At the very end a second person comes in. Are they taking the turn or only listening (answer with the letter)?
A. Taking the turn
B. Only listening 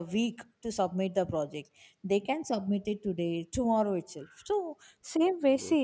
B